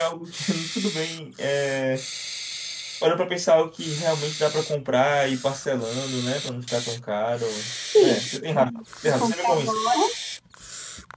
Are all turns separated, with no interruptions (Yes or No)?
No